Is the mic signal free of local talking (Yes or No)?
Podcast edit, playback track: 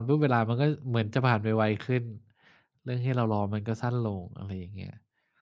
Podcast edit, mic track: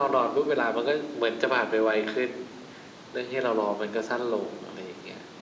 Yes